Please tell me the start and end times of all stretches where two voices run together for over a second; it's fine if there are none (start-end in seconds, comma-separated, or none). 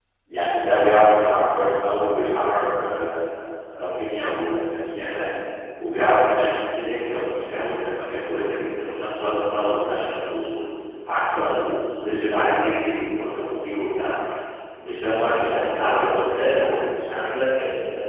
15.1-17.1